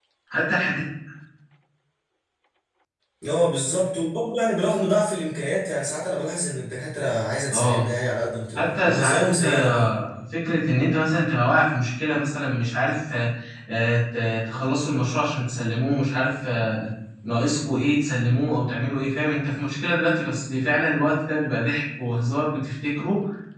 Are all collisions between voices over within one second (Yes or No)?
No